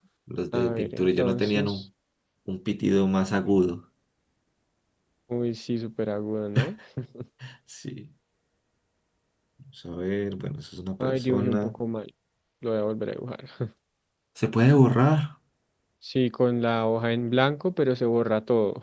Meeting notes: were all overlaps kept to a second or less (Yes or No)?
No